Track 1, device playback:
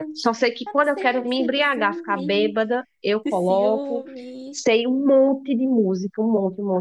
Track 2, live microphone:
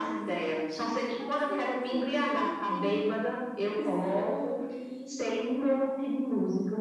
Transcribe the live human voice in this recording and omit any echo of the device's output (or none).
none